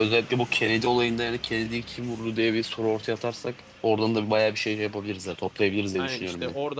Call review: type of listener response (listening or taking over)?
taking over